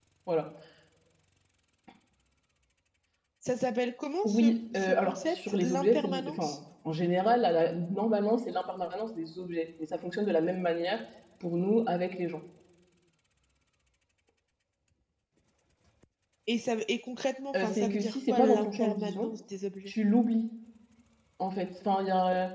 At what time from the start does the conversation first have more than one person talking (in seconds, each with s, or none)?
4.2 s